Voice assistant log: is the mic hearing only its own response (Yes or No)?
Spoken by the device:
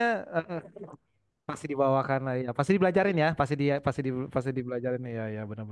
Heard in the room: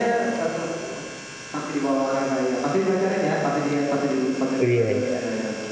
No